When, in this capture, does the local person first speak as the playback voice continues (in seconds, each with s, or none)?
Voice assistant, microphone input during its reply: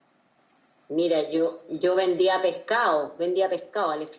none